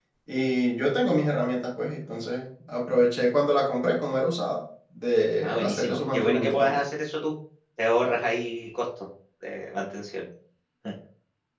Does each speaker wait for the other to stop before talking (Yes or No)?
No